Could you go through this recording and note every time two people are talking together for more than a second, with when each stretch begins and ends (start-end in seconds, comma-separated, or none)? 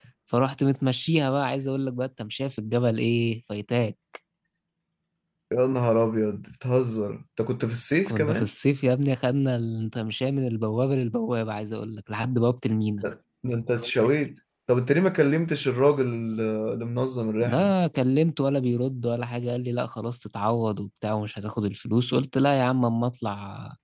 none